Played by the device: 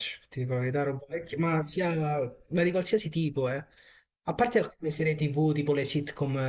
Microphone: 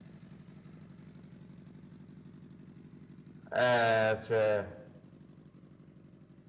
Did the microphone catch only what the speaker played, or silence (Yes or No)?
No